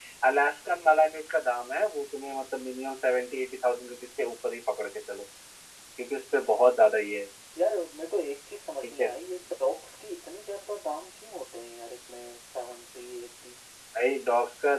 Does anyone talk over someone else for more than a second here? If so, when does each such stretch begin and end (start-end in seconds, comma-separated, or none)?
none